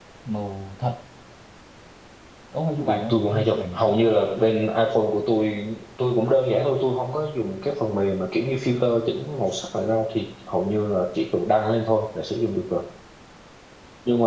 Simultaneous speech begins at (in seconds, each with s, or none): 2.9 s